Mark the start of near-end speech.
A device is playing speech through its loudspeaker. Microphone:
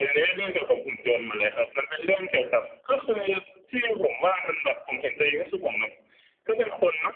none

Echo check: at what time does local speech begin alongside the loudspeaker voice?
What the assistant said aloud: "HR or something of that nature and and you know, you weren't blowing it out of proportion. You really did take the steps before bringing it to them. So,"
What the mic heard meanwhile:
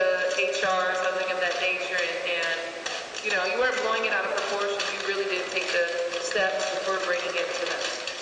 none

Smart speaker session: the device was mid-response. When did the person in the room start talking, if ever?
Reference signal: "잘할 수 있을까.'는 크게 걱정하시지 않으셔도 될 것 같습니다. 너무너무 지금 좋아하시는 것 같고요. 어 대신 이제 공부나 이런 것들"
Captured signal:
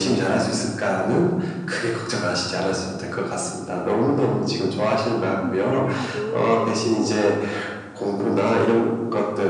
5.4 s

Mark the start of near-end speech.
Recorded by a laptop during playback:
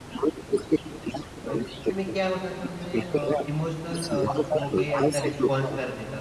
1.5 s

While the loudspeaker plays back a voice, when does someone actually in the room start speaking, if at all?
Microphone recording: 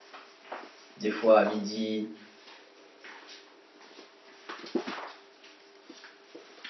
1.0 s

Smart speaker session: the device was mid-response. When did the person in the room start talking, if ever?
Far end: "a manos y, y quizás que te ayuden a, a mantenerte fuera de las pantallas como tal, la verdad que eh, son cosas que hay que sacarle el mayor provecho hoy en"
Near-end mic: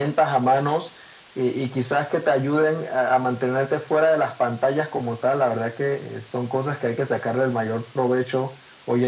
none

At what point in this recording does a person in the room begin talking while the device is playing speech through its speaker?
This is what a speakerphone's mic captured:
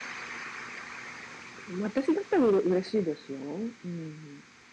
1.6 s

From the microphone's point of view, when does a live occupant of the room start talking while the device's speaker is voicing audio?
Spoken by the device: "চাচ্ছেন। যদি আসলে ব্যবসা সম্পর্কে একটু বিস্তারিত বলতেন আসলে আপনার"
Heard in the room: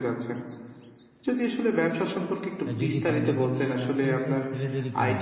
2.6 s

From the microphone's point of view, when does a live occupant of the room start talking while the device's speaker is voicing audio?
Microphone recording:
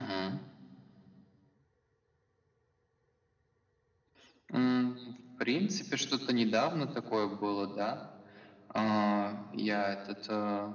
none

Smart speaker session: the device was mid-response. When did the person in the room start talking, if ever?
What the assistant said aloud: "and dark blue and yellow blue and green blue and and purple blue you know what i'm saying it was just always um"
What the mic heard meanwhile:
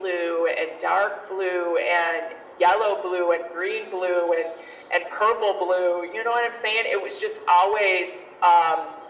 none

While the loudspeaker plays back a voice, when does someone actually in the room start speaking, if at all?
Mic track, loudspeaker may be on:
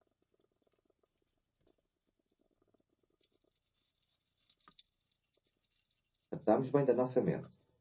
6.3 s

